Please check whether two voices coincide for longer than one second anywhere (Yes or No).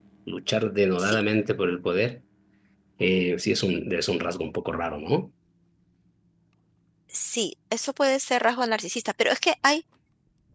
No